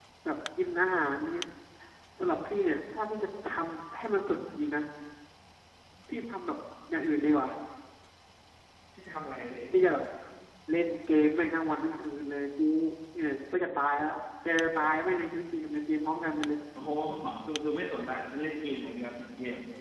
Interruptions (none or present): none